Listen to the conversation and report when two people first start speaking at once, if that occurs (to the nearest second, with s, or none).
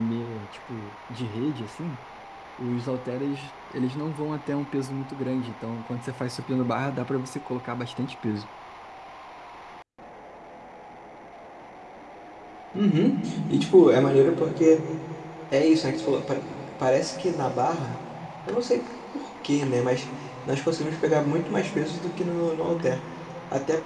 none